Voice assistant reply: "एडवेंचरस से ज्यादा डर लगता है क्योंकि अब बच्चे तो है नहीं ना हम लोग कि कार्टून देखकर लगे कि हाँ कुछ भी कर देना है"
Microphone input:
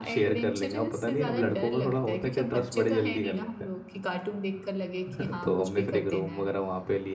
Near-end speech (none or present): present